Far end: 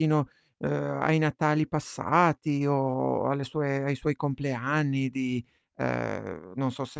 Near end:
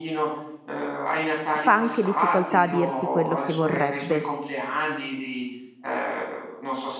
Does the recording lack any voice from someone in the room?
No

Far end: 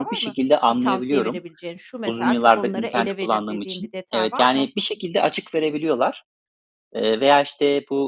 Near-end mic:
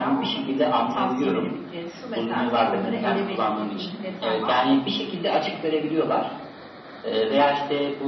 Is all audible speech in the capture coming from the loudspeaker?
Yes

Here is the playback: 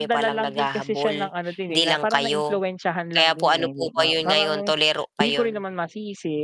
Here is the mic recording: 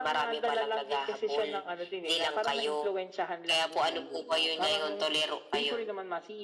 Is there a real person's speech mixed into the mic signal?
No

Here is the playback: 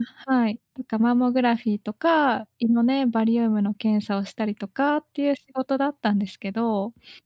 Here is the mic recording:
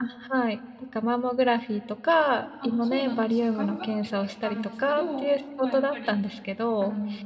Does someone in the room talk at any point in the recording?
Yes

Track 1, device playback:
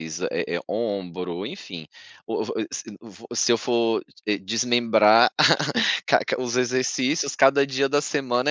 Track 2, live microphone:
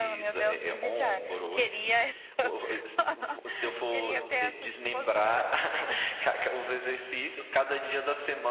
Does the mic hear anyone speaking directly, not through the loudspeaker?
Yes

